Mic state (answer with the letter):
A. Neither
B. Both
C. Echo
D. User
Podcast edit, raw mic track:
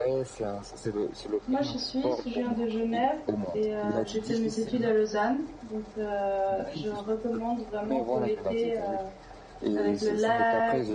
B